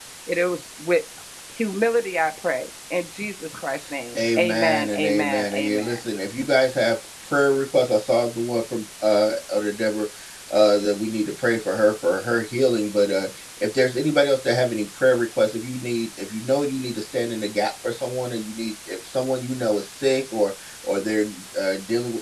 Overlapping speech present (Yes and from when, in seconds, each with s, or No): Yes, from 4.2 s